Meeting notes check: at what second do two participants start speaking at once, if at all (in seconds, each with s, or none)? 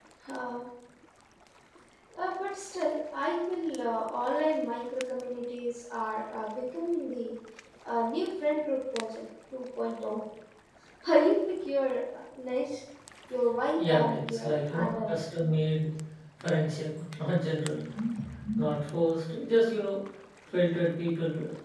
13.8 s